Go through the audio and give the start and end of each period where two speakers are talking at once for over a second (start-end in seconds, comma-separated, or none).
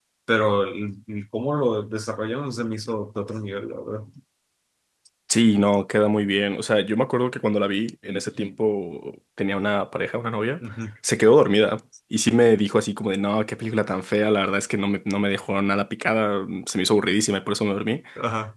none